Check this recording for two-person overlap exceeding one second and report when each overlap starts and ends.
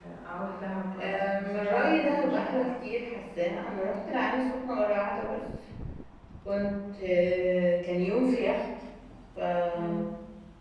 1.0-2.7

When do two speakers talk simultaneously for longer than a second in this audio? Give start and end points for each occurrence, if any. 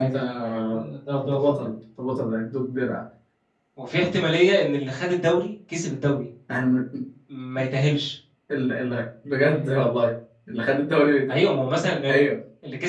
none

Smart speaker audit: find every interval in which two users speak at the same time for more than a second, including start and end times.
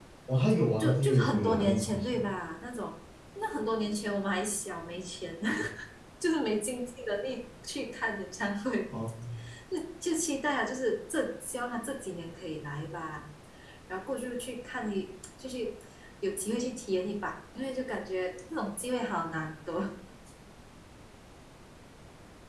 0.8-2.3

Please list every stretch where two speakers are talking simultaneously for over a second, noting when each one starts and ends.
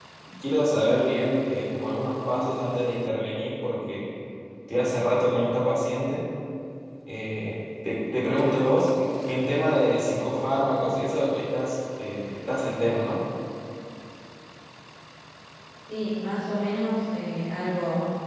none

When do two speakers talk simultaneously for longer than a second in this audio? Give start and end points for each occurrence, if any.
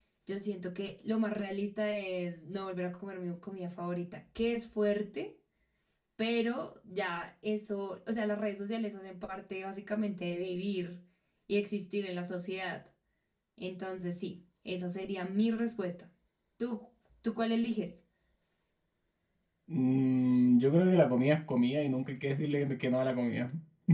none

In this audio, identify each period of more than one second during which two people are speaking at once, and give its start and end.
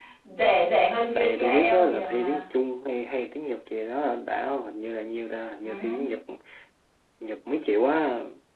1.1-2.4

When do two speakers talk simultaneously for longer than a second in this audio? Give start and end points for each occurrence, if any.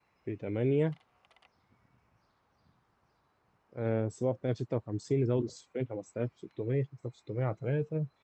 none

